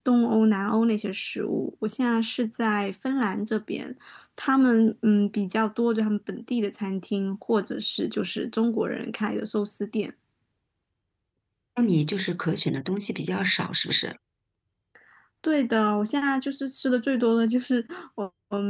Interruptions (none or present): none